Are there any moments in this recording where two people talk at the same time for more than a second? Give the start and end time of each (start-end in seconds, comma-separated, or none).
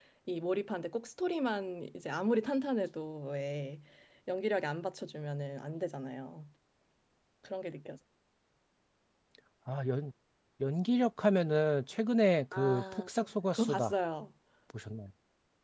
none